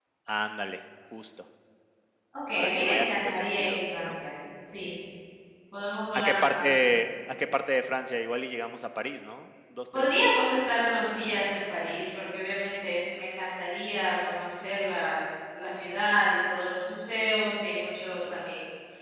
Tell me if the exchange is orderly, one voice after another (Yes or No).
No